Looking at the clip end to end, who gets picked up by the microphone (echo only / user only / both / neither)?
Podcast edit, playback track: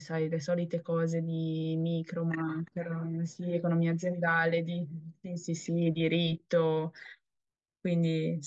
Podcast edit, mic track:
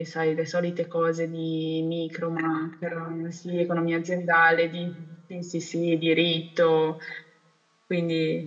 echo only